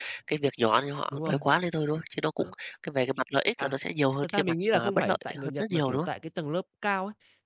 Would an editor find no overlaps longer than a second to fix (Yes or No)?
No